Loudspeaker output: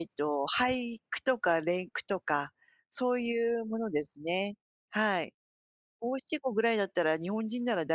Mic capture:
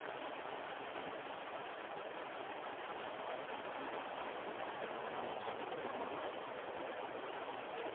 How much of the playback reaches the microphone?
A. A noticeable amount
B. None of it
B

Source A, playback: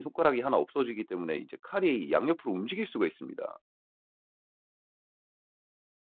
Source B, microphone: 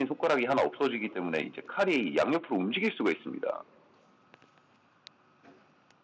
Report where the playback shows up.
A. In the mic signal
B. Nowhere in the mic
A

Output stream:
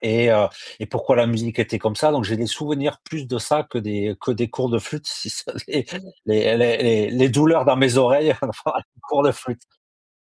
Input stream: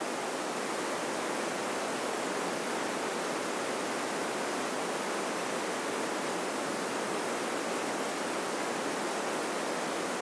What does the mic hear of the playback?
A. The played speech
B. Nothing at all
B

